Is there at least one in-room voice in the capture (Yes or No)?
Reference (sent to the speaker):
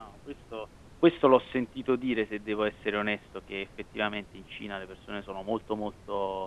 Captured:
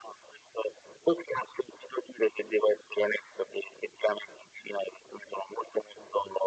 No